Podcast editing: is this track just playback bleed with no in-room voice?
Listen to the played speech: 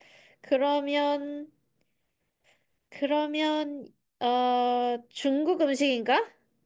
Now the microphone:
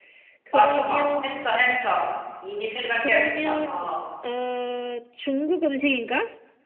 No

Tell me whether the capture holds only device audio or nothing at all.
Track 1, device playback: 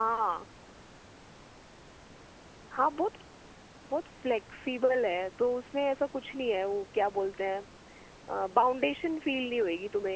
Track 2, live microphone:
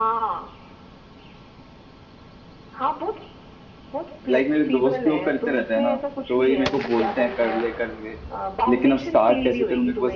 No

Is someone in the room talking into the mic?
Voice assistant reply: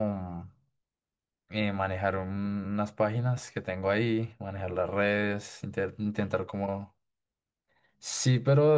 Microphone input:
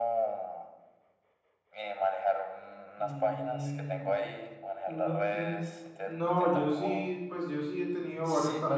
Yes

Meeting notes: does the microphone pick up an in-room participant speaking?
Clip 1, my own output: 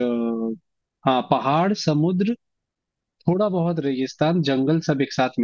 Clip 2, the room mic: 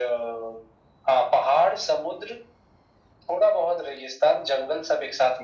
No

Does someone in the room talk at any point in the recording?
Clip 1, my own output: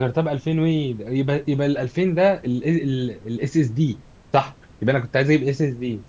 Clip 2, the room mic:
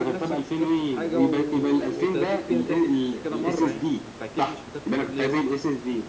Yes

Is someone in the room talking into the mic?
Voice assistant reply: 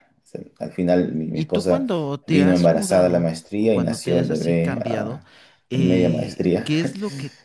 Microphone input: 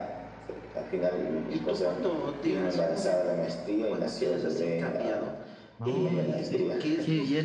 Yes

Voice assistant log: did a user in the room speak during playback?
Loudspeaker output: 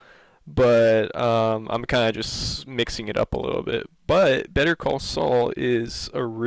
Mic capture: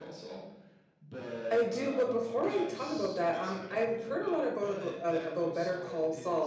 Yes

